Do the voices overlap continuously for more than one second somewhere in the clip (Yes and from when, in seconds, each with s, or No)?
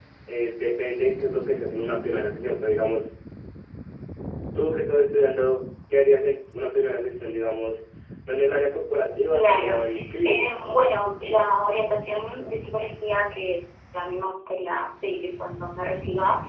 No